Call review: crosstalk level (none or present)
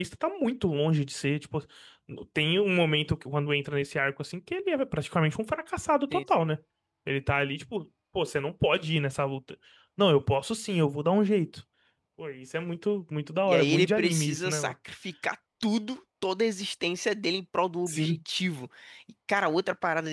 present